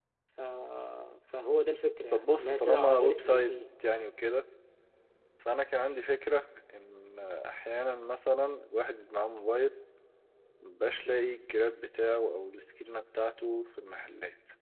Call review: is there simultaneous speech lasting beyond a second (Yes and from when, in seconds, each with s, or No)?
Yes, from 2.1 s